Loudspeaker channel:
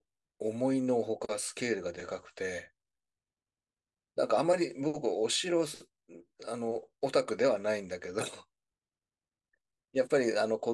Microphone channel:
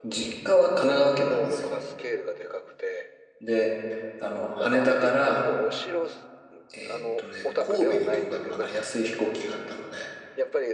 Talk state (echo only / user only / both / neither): both